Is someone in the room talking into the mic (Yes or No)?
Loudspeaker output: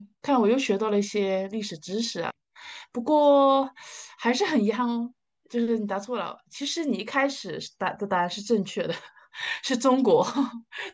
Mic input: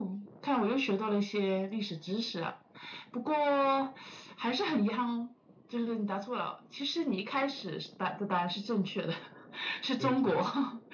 Yes